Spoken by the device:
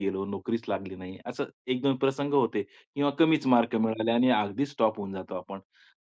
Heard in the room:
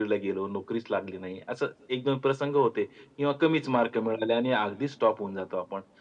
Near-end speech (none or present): none